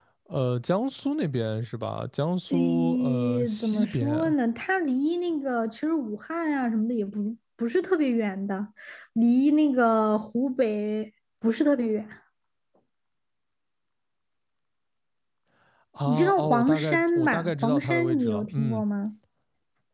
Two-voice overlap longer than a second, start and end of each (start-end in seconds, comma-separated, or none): 2.5-4.3, 16.1-18.8